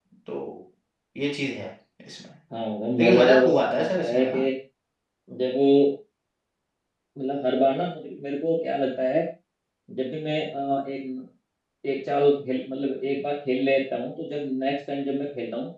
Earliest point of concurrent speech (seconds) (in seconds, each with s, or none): 3.0 s